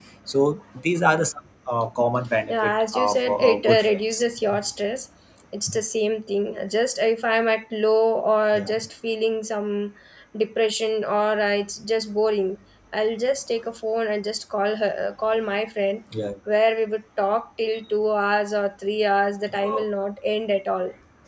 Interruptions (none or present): present